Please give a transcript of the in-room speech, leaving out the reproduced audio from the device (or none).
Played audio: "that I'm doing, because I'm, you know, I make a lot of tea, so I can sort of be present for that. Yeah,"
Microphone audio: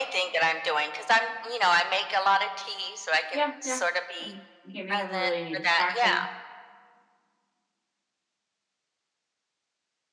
Yeah, yeah. like, you can't be having really any distractions?